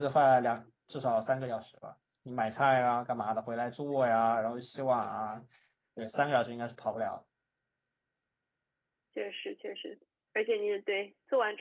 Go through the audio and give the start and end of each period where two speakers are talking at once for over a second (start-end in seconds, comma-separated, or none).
none